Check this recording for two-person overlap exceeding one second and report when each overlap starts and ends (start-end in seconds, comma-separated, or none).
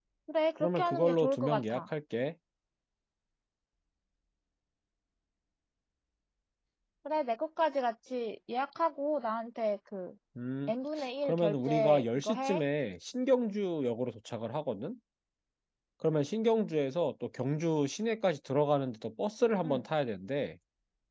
0.6-1.8, 11.2-12.6